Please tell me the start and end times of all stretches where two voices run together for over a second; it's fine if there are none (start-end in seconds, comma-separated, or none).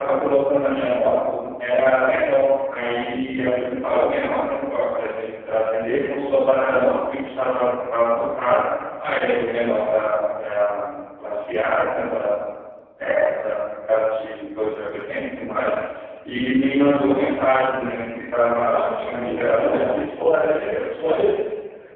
18.6-19.9